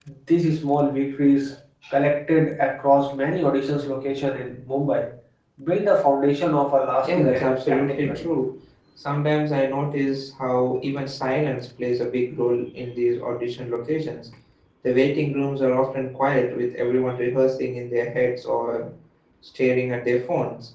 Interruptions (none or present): present